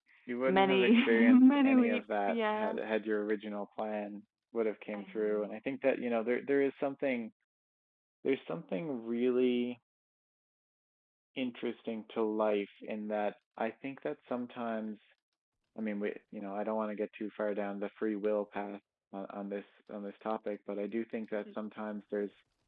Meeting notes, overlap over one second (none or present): present